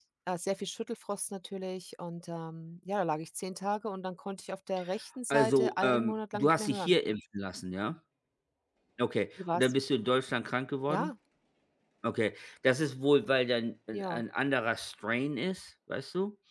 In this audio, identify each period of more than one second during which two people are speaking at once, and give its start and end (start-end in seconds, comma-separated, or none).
5.3-7.0